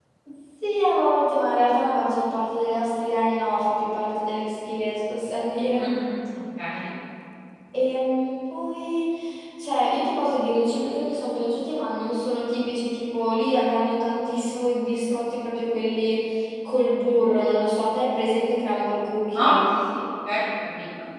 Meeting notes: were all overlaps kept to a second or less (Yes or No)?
Yes